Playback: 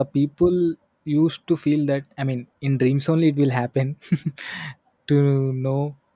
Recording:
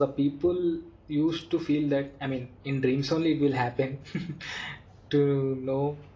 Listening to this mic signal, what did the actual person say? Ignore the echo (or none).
none